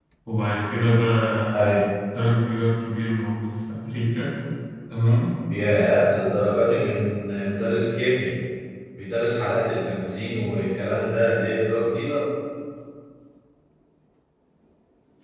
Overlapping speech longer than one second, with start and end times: none

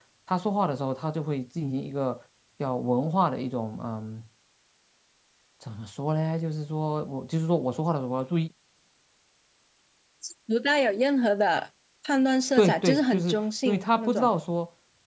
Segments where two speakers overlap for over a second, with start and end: 12.6-14.3

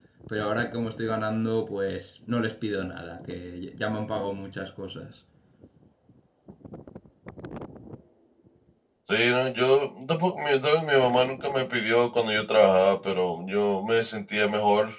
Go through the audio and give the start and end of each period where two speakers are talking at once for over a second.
none

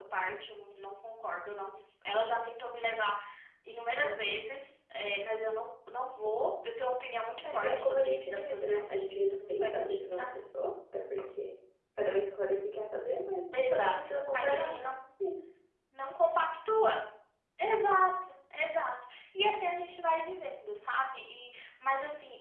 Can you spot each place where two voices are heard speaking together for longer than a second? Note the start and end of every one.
7.4-10.4, 13.5-14.9

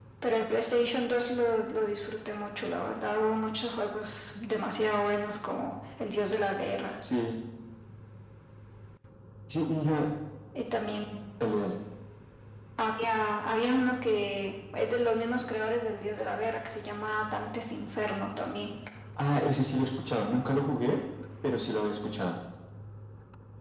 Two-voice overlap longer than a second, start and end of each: none

